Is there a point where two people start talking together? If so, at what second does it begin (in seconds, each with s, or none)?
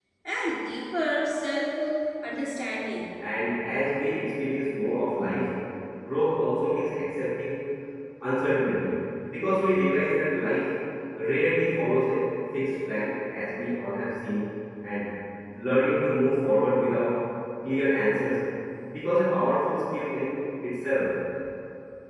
none